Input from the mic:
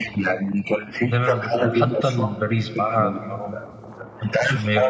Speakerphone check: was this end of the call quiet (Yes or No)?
No